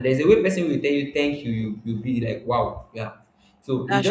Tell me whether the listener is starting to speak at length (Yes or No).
No